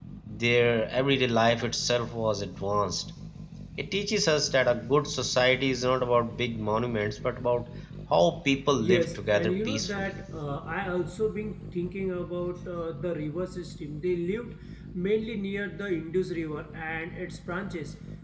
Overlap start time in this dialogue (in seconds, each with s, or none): 8.8 s